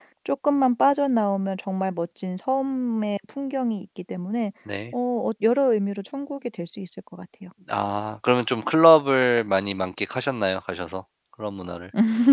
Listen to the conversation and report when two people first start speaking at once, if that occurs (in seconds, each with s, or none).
none